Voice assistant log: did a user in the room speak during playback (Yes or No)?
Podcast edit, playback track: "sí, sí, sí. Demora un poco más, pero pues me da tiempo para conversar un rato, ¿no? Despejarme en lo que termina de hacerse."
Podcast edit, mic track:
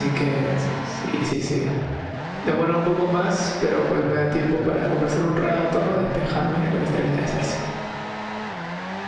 No